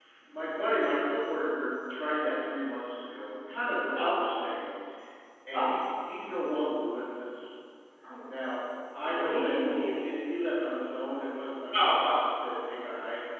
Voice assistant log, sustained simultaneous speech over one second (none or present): present